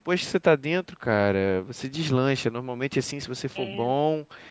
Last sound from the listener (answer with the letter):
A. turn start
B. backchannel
B